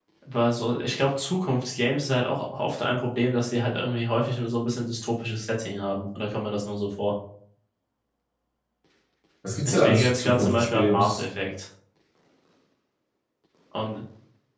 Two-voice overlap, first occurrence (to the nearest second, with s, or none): 10 s